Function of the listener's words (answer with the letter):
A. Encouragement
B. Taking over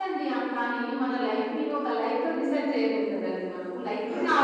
A